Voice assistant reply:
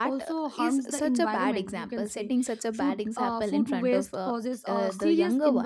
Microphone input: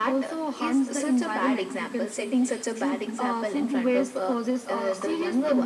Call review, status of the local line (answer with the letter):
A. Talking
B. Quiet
B